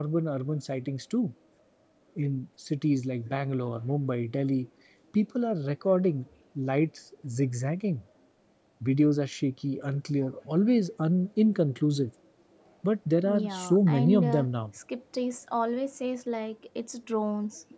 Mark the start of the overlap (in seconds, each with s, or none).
13.2 s